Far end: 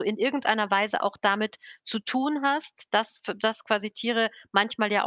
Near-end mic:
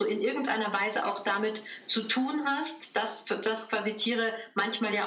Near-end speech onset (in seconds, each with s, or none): none